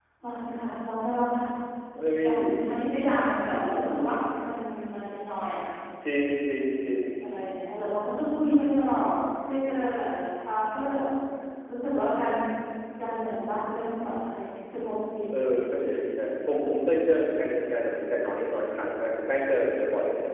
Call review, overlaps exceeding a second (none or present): none